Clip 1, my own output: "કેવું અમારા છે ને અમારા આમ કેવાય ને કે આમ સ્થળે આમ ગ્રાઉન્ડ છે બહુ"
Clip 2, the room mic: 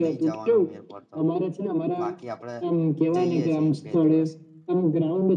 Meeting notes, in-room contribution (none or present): present